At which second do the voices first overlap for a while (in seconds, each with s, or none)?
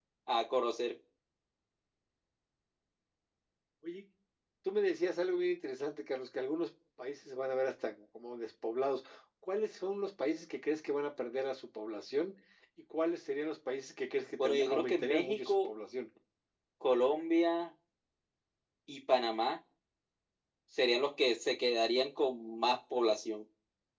14.4 s